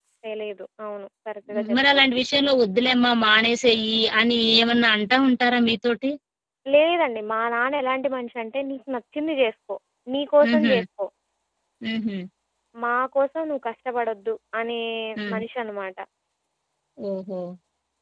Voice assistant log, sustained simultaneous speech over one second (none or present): none